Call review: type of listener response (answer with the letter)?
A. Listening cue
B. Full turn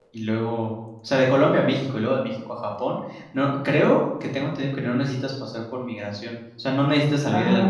B